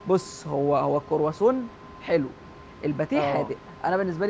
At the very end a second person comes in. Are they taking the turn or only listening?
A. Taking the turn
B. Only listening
B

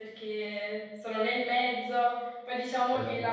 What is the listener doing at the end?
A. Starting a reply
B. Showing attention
B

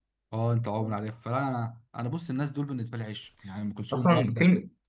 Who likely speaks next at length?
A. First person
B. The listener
B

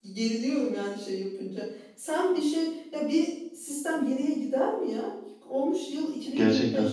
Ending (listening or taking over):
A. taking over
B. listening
B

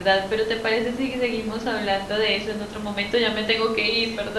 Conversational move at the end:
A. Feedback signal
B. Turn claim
B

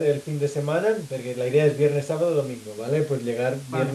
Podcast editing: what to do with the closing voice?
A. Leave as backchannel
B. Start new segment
A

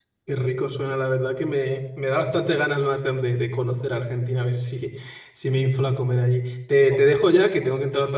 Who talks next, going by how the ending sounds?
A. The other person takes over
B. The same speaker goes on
B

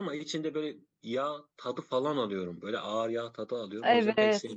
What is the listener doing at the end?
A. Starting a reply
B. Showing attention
A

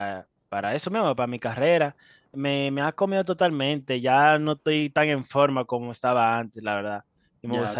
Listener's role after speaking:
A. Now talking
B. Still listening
A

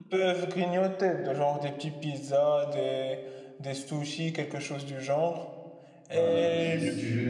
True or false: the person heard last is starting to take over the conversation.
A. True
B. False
A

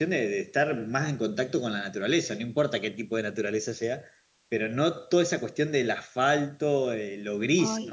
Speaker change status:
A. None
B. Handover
A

